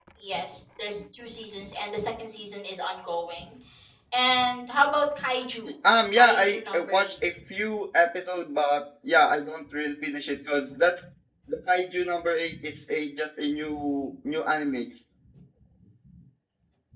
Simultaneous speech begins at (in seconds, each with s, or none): 6.1 s